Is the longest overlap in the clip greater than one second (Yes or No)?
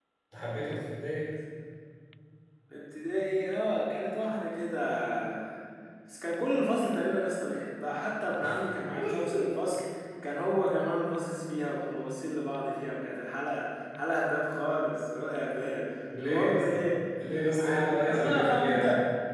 Yes